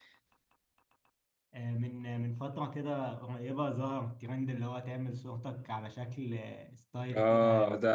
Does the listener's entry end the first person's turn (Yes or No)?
Yes